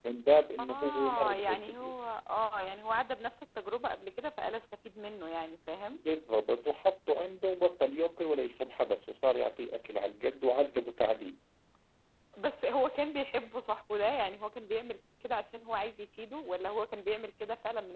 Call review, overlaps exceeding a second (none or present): present